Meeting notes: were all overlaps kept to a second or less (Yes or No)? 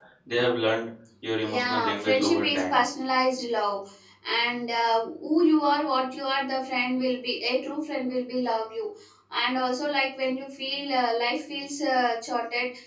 No